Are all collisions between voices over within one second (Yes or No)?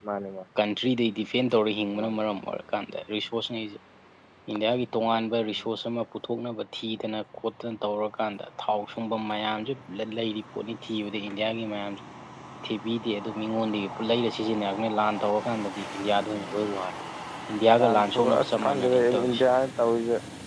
No